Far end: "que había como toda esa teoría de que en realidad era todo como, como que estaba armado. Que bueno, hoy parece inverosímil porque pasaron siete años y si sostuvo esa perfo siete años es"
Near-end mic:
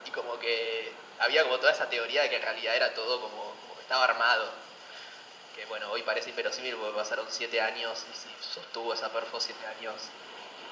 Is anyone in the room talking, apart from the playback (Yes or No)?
No